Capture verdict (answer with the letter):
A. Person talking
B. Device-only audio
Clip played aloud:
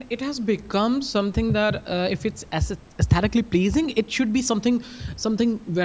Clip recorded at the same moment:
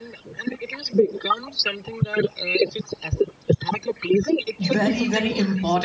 A